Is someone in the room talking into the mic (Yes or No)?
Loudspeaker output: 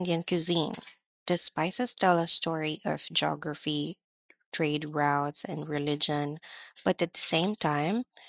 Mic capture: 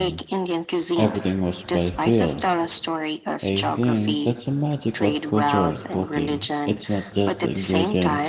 Yes